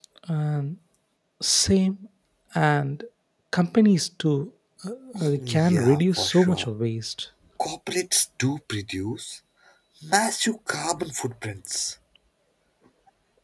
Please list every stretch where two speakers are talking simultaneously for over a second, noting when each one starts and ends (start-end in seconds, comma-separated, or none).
5.4-6.7